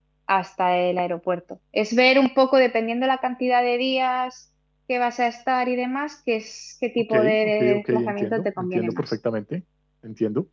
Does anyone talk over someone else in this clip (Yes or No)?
Yes